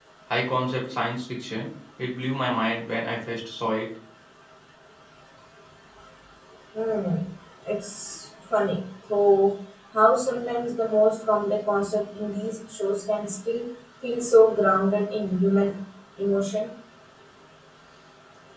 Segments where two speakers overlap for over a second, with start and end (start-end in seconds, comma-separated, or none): none